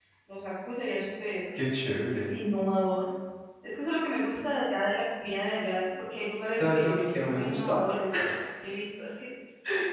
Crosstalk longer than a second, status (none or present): present